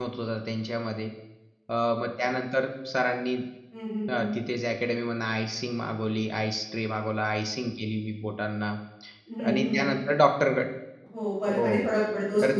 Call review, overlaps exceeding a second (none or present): none